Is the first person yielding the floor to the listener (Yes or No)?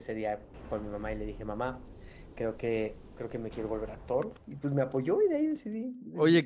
Yes